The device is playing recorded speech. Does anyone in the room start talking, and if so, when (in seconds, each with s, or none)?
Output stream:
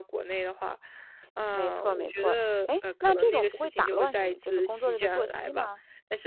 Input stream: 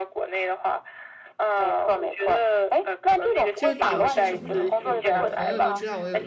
3.5 s